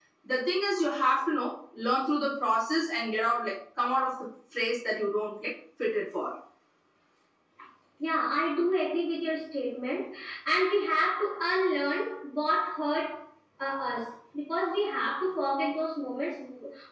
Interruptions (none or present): none